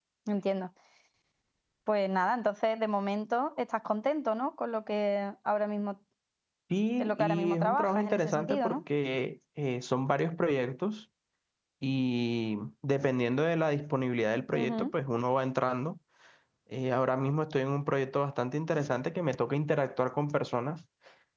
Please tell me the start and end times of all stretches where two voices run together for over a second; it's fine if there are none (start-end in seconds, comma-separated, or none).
7.0-8.8